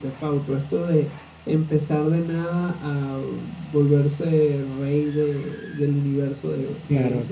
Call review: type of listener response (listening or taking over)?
listening